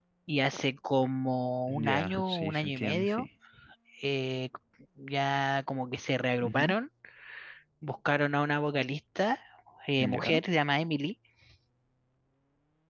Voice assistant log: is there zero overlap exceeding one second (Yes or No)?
No